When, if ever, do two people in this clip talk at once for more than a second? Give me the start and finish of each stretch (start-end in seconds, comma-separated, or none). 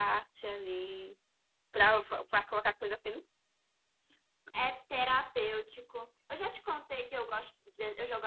none